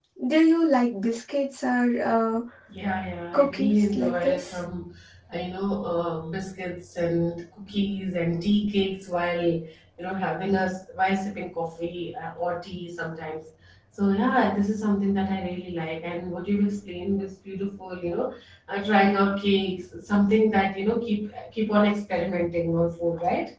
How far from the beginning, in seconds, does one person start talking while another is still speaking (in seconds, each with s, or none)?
3.3 s